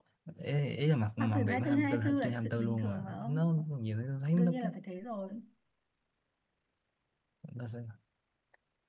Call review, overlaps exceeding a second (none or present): present